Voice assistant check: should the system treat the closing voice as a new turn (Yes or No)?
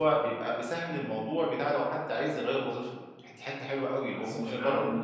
Yes